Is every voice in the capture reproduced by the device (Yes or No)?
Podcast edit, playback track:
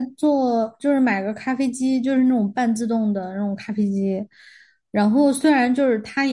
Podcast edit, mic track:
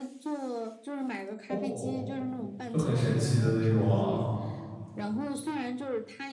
No